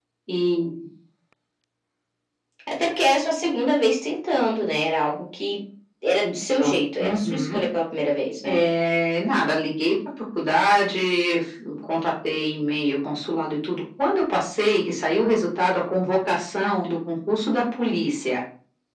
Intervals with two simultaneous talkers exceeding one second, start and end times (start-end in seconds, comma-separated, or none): 6.2-7.6